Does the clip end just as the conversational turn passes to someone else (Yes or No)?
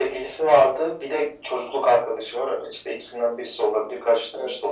Yes